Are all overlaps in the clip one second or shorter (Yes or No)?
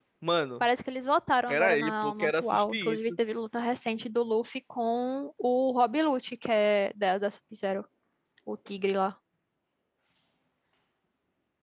No